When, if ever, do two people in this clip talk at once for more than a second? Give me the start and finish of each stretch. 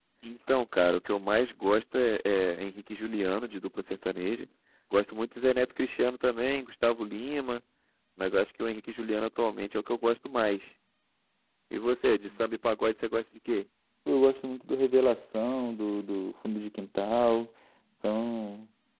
none

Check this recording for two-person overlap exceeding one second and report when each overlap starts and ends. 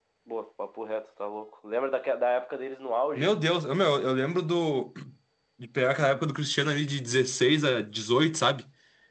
none

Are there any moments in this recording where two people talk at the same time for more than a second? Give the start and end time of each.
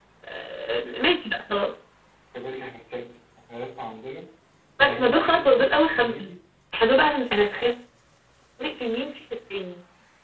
4.8-6.3

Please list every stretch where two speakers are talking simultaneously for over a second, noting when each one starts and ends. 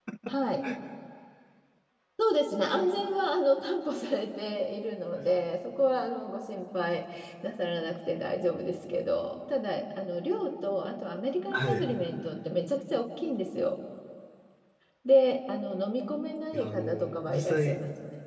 16.5-17.8

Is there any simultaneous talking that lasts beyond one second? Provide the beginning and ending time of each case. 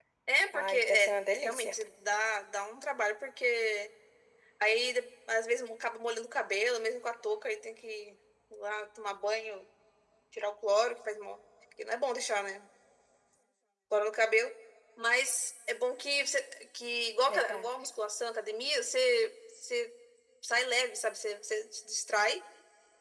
0.5-1.8

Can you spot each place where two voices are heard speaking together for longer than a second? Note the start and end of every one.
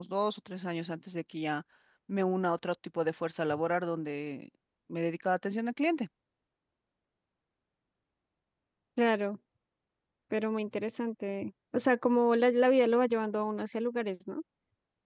none

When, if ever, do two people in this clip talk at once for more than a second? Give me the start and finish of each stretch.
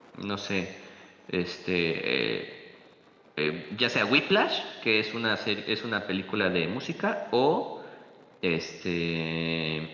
none

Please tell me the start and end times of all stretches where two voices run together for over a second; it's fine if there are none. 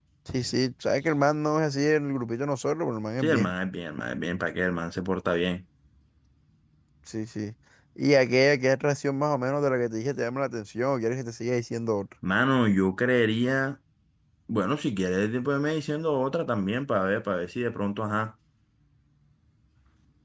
none

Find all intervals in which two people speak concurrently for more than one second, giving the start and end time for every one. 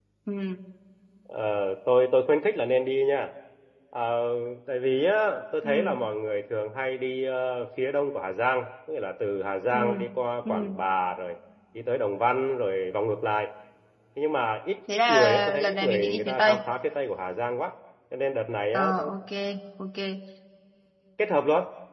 14.9-16.6

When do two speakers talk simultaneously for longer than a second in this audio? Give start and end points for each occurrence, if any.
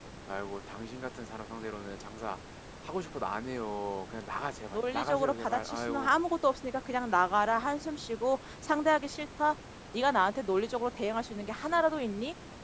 4.7-6.1

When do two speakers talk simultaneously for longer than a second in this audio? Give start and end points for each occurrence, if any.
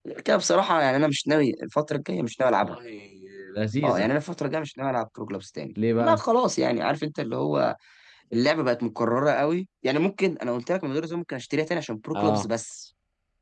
none

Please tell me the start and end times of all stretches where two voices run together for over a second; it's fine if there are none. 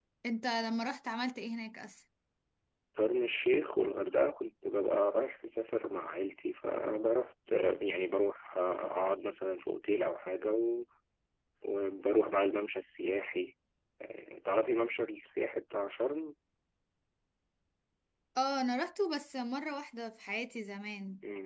none

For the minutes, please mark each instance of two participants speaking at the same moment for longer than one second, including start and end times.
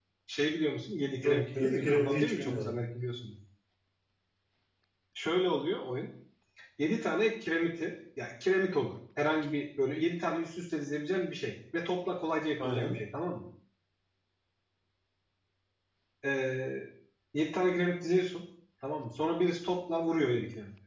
1.2-2.7

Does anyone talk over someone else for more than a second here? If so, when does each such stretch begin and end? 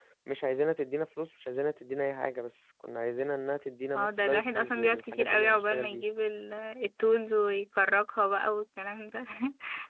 4.0-6.0

